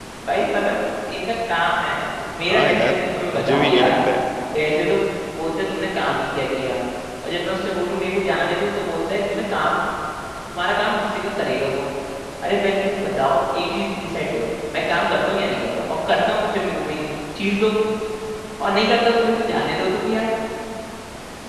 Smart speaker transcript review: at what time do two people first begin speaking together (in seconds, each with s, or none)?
2.5 s